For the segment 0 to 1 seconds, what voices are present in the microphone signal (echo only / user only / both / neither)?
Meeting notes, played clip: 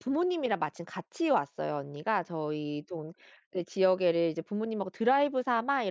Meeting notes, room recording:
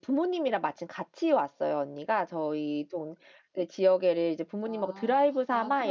echo only